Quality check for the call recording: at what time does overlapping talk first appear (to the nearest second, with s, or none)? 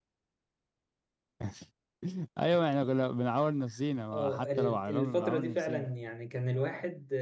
4 s